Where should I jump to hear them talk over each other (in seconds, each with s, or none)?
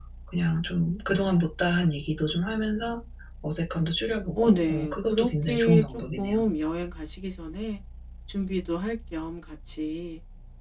4.3 s